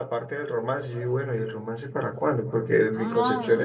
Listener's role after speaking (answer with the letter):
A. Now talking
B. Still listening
B